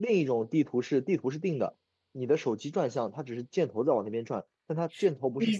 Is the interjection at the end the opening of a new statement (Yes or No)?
Yes